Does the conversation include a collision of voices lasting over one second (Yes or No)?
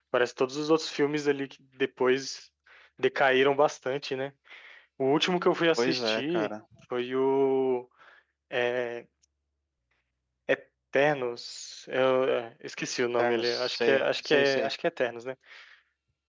Yes